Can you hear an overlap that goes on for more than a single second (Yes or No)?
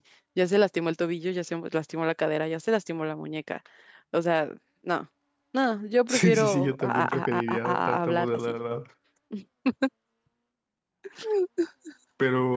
Yes